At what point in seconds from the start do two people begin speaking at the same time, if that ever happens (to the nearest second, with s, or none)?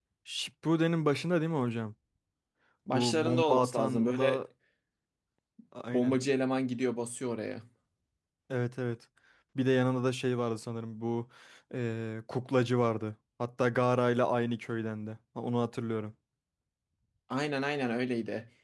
3 s